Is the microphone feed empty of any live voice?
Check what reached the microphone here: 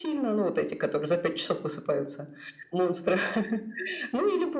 Yes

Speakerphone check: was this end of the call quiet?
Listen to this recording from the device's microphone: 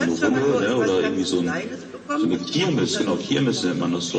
Yes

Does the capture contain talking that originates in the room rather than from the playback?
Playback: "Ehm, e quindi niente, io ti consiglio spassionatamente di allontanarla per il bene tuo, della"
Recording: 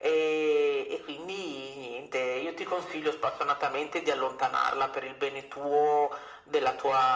No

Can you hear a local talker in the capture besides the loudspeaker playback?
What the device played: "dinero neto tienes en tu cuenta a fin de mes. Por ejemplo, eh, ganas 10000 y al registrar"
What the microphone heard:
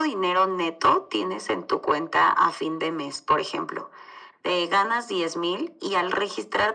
No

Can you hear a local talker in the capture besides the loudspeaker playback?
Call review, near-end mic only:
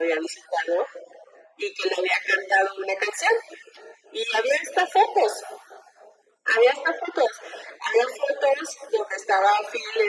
No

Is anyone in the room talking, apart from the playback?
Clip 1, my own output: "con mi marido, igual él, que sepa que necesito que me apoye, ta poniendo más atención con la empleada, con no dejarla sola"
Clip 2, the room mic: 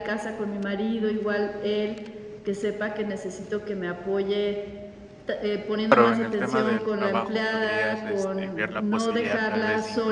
Yes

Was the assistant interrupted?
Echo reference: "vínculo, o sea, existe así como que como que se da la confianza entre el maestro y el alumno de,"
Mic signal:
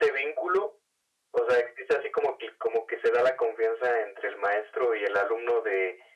No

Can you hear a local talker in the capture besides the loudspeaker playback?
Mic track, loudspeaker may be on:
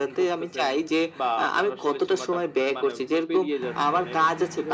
No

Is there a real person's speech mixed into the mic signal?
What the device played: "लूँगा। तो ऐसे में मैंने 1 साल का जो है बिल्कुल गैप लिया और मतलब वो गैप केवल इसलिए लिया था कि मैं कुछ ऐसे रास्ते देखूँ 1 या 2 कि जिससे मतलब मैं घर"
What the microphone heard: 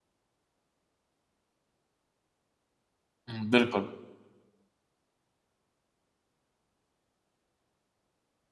Yes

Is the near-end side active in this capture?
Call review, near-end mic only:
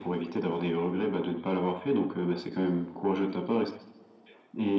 No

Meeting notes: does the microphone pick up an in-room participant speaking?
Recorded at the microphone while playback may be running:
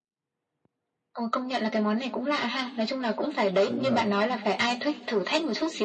Yes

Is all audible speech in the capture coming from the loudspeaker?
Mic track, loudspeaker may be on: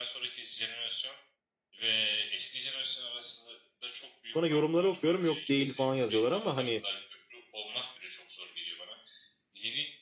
No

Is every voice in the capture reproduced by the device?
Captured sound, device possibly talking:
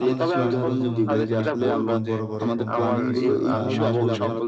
No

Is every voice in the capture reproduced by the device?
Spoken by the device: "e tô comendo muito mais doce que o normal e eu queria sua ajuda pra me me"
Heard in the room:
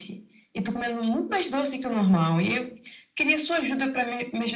Yes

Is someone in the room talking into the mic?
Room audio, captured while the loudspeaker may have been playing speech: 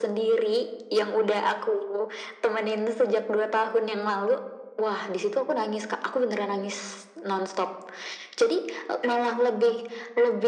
No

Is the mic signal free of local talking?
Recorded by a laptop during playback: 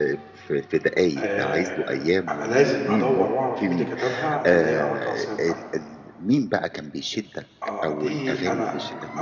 No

